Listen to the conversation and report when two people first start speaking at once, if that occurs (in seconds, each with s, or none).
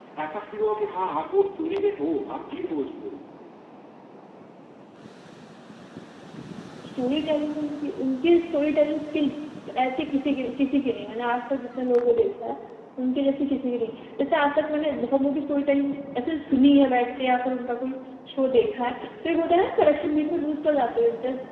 none